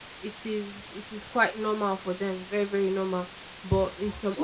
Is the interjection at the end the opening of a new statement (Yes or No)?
Yes